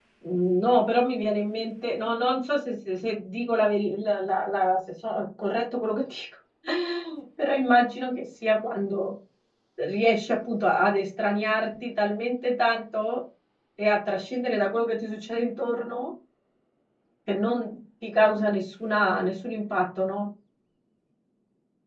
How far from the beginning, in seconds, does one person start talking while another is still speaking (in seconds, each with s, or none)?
none